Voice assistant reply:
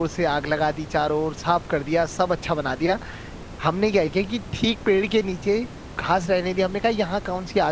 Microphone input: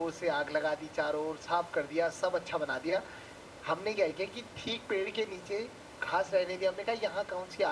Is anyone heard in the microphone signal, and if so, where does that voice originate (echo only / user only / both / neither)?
echo only